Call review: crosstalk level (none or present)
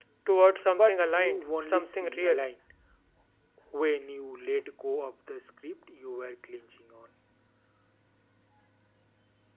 present